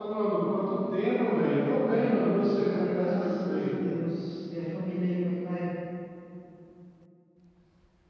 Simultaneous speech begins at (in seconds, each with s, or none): 1.6 s